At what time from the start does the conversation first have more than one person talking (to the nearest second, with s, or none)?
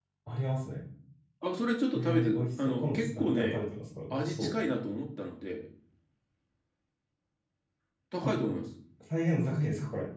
2 s